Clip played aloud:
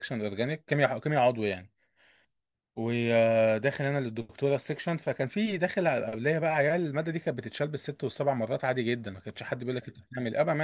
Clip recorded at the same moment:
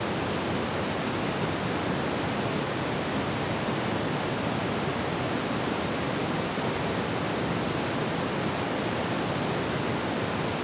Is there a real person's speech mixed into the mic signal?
No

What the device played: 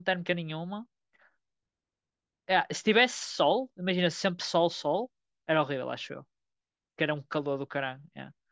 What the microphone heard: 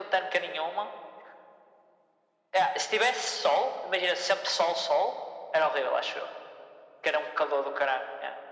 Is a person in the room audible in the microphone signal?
No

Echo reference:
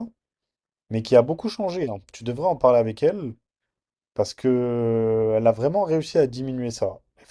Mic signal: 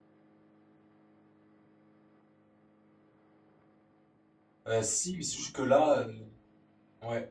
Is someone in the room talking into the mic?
Yes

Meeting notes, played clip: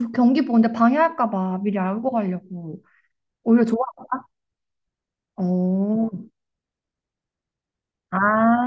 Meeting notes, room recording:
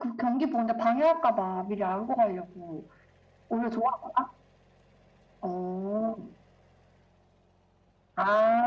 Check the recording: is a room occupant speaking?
No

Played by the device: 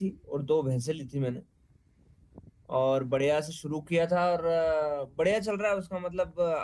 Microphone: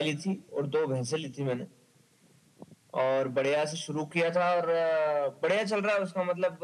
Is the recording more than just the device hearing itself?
No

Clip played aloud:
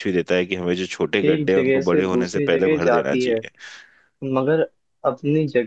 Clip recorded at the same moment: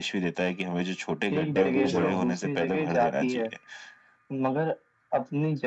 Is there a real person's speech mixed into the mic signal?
Yes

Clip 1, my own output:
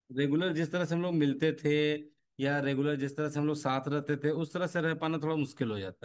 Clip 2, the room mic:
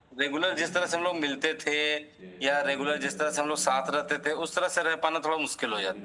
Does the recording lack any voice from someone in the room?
No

